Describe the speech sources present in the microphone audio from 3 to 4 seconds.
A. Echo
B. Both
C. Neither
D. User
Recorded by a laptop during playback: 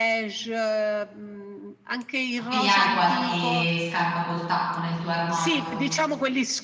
B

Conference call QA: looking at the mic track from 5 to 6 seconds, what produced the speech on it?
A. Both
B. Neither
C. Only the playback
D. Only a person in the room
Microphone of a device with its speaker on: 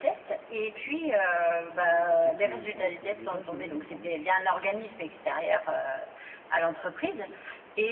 C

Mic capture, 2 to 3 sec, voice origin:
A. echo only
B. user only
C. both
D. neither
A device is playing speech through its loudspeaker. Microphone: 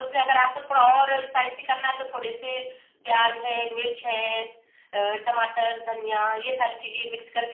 A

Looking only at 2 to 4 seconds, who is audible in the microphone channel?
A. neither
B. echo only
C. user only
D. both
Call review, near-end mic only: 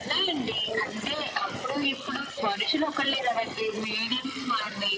B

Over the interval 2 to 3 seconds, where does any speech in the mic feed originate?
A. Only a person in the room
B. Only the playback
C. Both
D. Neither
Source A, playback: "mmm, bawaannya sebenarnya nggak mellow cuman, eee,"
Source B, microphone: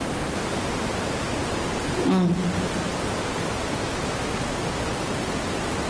A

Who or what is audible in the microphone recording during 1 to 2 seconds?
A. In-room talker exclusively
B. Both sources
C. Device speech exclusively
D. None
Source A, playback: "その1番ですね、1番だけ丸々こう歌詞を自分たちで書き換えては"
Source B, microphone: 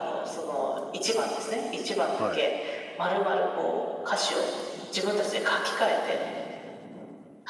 C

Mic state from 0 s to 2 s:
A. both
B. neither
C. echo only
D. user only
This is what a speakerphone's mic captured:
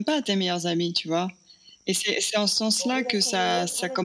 C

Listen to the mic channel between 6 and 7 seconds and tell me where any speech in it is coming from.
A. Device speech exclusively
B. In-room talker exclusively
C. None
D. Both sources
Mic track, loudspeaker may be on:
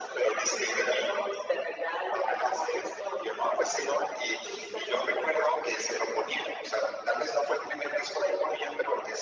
A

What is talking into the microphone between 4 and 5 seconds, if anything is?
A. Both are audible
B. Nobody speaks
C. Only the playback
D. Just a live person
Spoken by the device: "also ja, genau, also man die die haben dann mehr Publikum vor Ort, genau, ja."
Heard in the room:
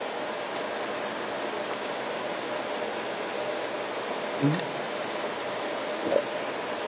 D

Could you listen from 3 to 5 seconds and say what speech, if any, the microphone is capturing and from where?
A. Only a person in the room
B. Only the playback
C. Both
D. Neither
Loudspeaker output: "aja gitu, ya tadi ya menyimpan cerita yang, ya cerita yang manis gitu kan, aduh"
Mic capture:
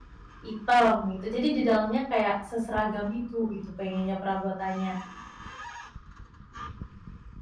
A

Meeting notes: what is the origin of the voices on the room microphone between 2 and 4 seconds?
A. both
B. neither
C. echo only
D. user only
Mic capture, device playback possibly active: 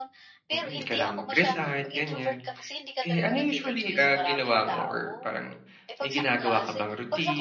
A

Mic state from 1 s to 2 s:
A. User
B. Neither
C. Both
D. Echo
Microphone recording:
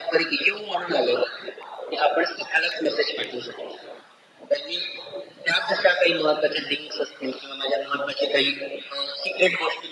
D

